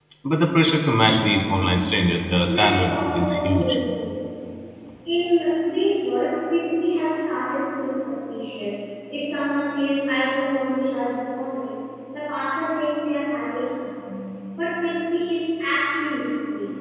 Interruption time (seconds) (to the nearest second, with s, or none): 2 s